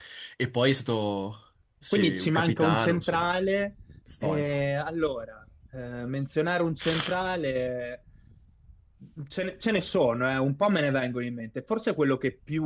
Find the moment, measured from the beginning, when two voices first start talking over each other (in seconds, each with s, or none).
1.9 s